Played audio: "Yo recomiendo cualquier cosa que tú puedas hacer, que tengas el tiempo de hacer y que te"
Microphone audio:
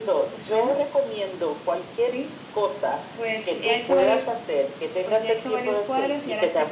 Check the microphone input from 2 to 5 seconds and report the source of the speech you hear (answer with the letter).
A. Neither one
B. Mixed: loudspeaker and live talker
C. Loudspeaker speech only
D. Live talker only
B